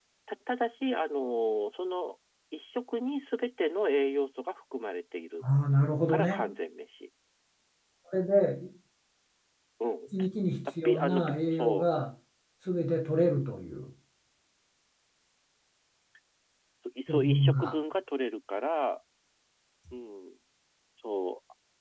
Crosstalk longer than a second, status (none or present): present